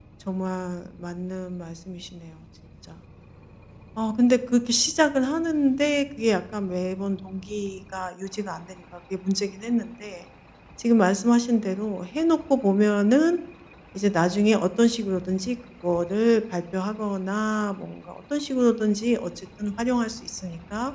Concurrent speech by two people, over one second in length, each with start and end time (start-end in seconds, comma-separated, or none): none